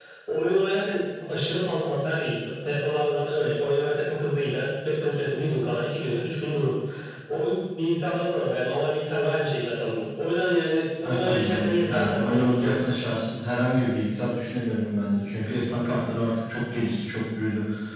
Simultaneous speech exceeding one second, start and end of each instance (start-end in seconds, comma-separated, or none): 11.0-12.8